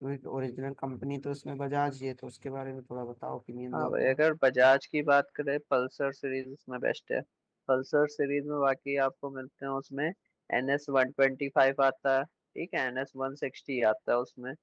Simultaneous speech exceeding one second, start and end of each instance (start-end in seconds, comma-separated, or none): none